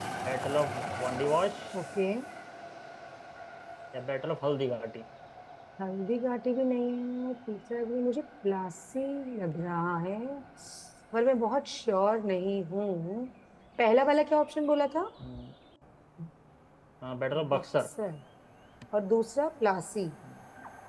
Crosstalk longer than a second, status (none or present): none